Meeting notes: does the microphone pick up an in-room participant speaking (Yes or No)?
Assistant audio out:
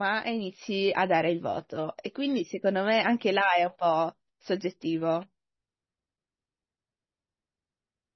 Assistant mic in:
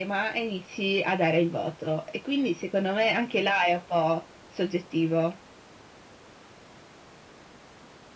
No